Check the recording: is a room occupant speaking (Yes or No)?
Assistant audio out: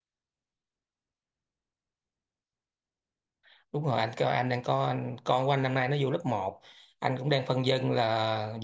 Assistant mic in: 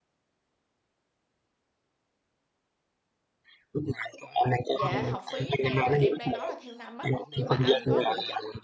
Yes